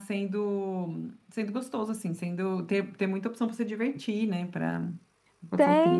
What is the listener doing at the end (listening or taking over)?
taking over